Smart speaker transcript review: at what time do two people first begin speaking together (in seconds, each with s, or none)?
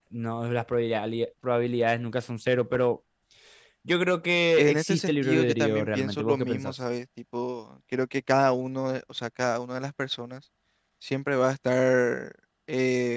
4.5 s